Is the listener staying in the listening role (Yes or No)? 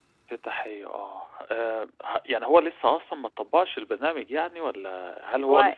Yes